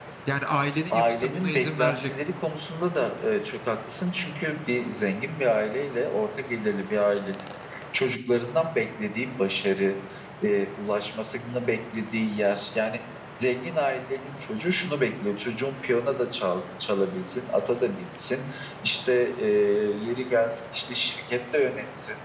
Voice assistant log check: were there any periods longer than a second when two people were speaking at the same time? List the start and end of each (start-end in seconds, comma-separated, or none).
0.9-2.1